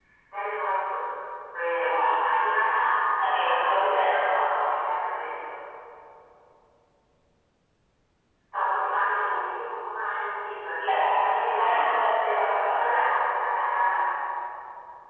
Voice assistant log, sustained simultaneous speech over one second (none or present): present